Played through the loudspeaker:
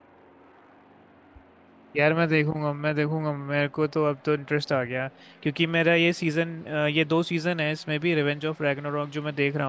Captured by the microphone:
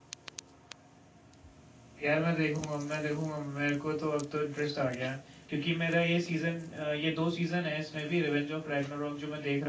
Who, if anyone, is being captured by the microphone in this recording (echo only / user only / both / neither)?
echo only